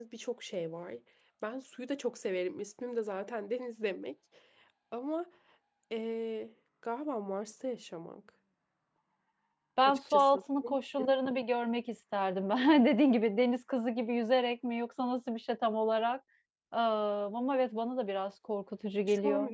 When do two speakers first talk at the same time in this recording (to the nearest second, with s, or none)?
10 s